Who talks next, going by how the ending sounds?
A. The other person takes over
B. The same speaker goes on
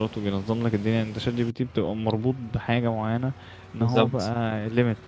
B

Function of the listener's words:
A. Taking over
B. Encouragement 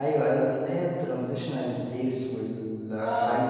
A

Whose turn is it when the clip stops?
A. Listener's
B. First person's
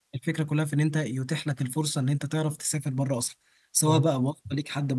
B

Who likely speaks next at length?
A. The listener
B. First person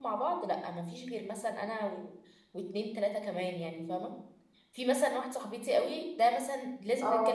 B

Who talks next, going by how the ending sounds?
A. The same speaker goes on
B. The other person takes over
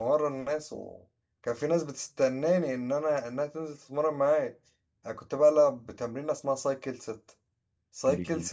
A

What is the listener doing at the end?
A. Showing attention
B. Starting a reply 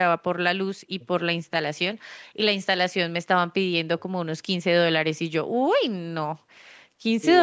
A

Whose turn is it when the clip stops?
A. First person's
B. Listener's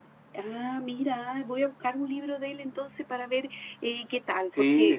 B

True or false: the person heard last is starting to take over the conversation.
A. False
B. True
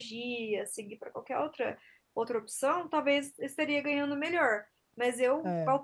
A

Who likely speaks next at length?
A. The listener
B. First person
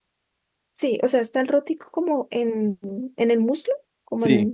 A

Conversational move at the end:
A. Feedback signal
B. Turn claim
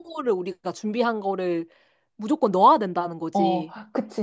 B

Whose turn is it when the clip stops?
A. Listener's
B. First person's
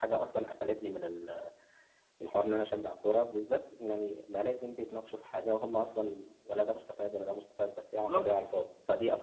B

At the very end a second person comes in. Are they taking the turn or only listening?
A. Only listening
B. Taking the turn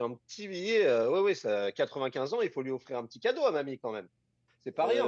B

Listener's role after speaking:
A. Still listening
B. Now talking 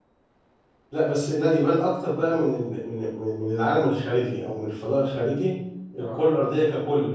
A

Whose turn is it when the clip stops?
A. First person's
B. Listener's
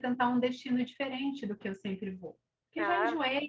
A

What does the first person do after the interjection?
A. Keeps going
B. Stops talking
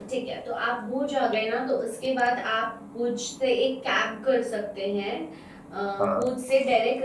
A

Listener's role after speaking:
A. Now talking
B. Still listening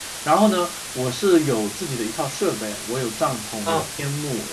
B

